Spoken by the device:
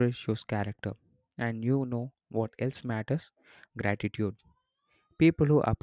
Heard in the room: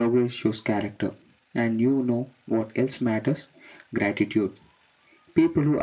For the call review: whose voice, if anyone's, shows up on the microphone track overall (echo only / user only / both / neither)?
echo only